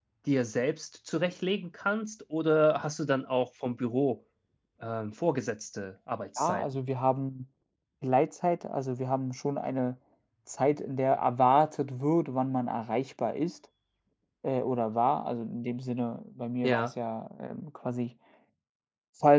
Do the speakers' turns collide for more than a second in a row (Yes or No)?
No